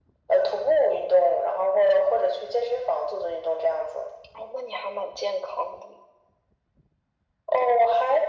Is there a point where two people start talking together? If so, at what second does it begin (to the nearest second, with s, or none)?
none